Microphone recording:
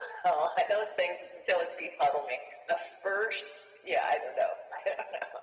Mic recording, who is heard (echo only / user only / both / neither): echo only